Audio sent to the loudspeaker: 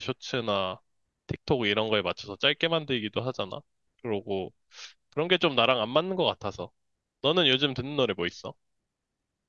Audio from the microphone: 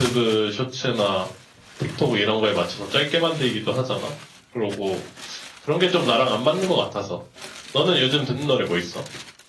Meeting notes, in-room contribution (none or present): none